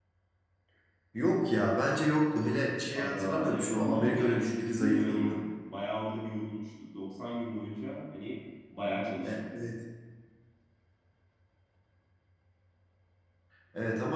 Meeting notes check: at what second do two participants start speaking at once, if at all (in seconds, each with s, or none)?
3.0 s